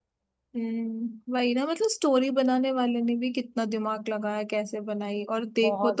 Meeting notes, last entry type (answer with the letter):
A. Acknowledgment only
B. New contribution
A